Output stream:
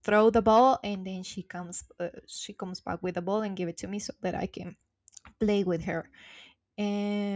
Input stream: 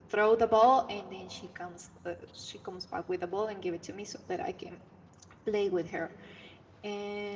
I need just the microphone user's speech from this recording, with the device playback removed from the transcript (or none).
none